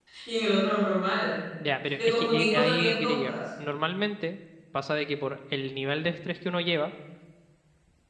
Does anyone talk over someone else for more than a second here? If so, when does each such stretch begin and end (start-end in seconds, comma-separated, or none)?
2.0-3.3